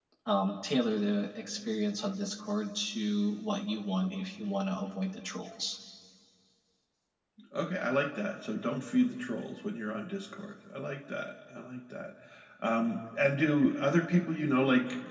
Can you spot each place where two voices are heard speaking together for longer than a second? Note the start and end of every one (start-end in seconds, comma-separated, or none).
none